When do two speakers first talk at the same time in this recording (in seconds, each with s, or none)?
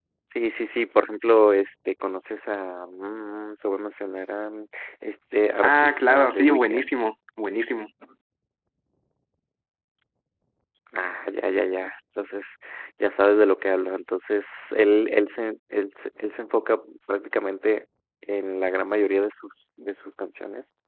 5.6 s